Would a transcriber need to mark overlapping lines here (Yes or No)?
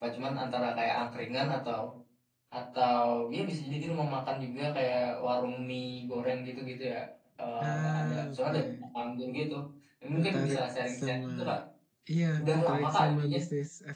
Yes